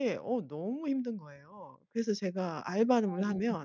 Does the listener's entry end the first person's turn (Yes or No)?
No